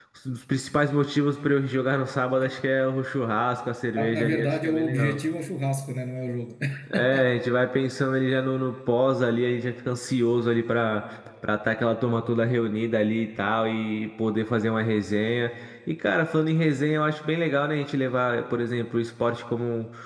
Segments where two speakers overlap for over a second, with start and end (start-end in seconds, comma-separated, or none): 4.0-5.2